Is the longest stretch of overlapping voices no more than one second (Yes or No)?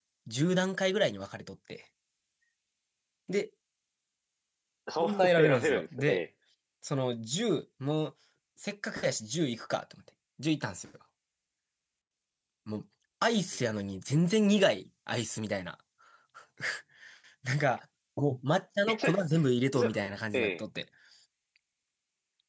No